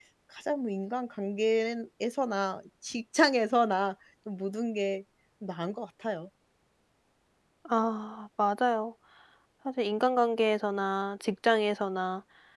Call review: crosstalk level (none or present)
none